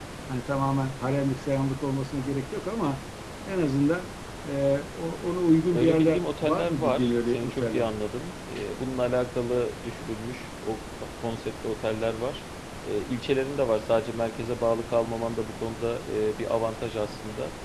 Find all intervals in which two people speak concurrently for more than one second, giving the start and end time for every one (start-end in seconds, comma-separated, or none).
5.7-7.9